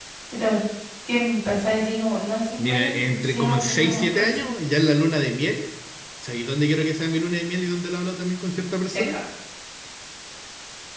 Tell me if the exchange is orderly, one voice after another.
No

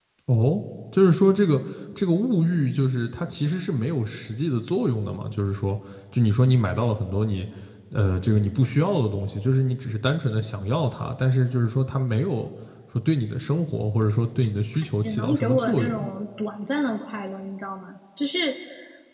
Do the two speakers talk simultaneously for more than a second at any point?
Yes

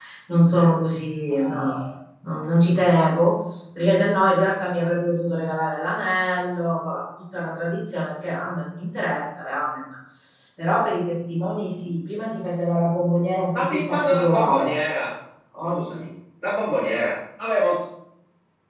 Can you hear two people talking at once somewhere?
Yes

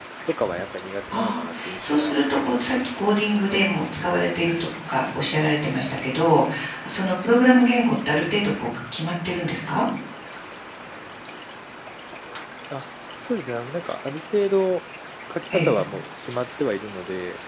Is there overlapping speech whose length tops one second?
Yes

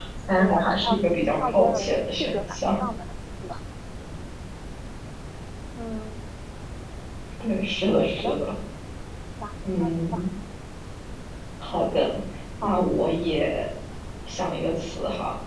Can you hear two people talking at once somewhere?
Yes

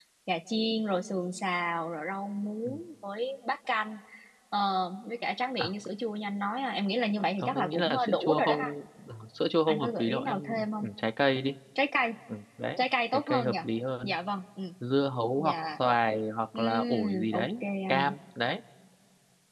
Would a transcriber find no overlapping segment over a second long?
No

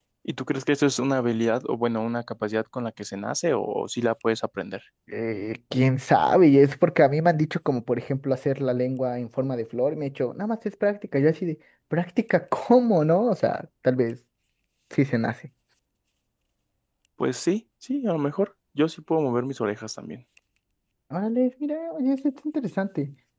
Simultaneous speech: No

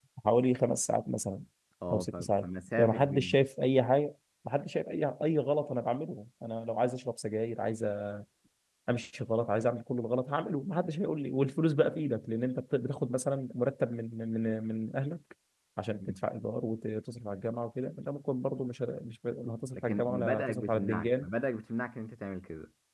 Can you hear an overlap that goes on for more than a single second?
Yes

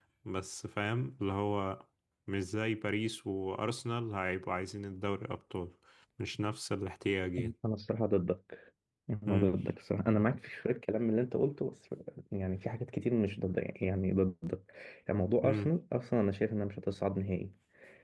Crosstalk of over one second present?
No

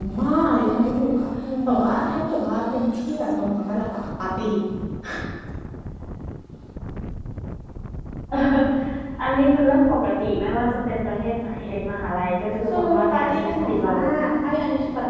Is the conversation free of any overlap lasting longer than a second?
No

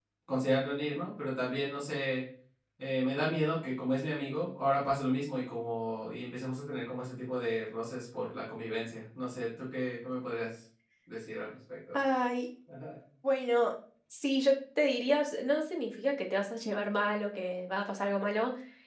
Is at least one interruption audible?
No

